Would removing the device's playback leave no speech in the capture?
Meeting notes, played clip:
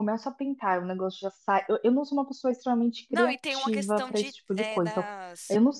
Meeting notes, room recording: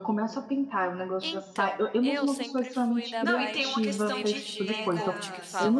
No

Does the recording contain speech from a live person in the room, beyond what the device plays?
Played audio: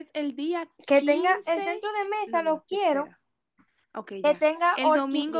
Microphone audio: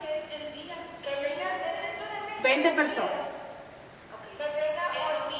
Yes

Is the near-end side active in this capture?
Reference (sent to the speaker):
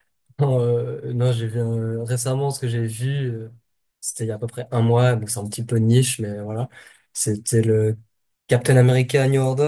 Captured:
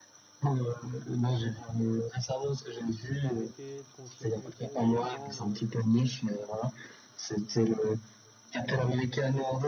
Yes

